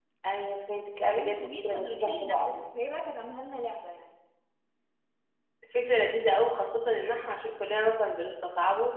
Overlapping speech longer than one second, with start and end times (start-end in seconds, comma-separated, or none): 1.1-2.6